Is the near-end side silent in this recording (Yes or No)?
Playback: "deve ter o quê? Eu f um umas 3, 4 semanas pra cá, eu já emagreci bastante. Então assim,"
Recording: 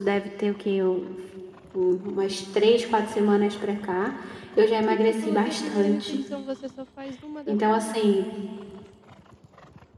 No